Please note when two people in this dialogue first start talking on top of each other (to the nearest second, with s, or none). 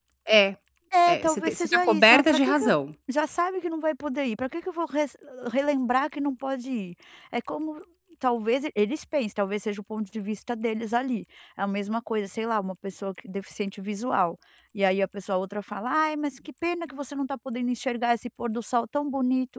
1 s